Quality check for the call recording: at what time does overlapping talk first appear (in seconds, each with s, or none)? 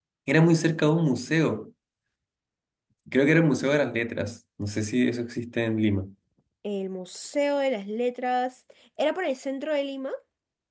none